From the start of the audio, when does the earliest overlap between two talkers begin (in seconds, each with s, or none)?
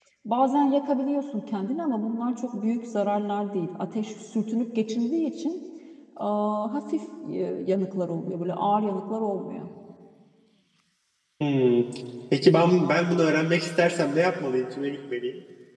none